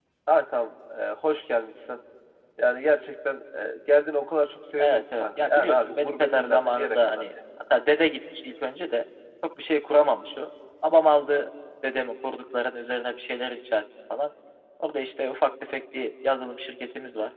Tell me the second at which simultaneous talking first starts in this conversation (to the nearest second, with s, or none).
5 s